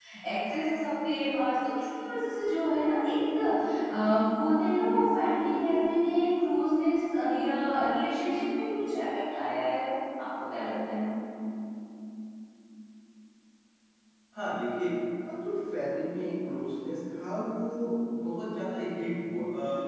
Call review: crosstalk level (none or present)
none